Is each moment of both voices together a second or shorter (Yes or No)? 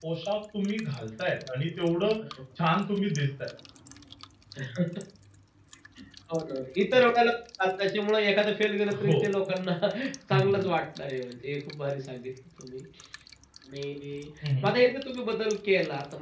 Yes